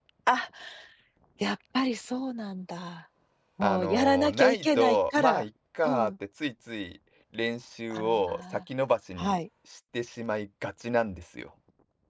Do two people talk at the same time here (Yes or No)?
Yes